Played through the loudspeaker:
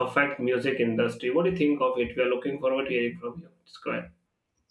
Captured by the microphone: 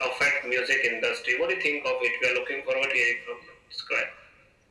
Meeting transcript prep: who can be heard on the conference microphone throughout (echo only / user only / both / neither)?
echo only